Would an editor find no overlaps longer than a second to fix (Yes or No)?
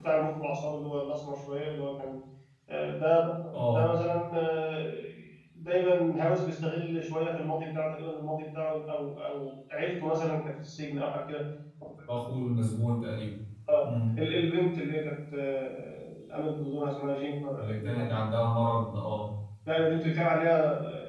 Yes